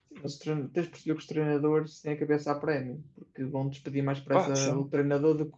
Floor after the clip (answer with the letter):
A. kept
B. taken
A